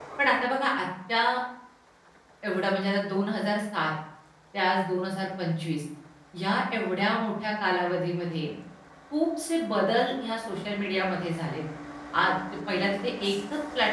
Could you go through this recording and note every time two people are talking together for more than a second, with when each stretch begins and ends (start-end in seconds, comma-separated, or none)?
none